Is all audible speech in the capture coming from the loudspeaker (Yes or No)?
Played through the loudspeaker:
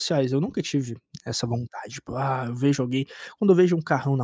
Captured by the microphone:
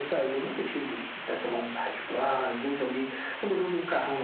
Yes